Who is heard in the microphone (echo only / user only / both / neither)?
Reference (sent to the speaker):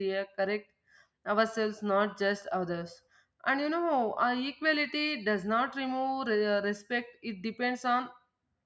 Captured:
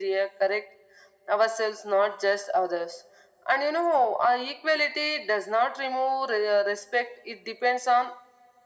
echo only